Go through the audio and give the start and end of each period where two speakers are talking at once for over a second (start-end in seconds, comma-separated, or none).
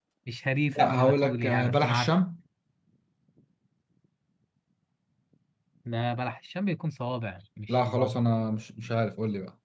0.8-2.1